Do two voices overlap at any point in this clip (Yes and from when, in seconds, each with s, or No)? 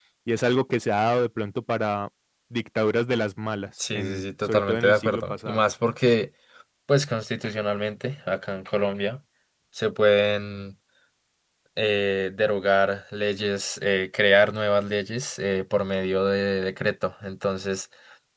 Yes, from 3.8 s